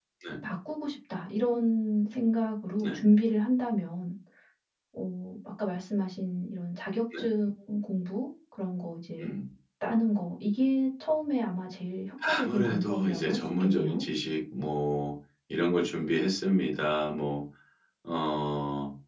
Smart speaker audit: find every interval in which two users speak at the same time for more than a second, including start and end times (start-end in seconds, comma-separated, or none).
12.2-14.0